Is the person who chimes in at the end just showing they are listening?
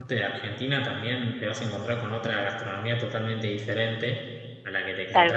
Yes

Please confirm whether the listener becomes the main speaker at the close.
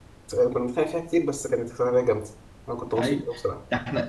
Yes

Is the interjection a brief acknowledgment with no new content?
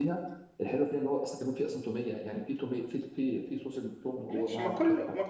No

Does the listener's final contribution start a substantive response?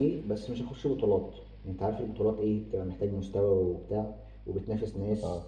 No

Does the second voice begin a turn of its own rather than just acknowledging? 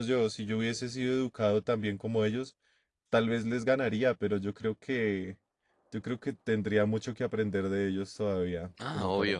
Yes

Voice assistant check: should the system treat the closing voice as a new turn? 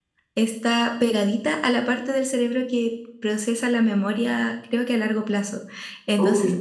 No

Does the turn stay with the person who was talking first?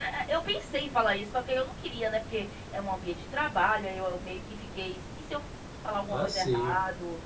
Yes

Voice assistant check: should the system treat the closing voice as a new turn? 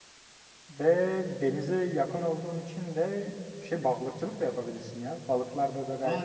Yes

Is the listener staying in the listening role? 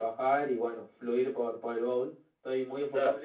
Yes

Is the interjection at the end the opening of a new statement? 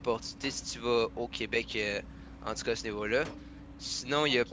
Yes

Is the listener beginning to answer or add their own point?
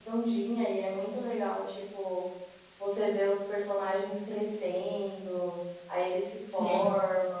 No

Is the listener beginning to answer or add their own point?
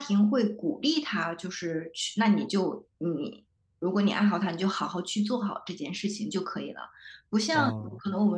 No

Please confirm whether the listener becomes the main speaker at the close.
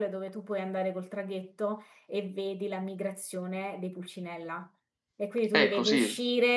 No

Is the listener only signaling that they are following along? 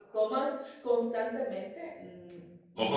No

